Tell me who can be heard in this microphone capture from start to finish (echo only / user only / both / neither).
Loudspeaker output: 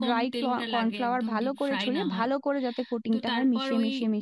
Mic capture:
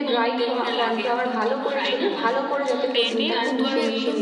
both